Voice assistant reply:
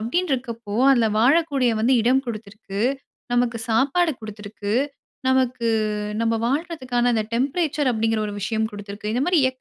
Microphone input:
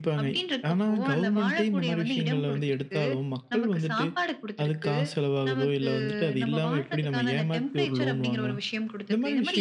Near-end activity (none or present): present